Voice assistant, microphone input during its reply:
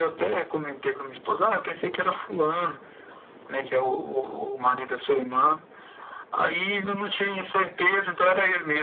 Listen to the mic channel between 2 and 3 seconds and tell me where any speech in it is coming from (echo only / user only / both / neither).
echo only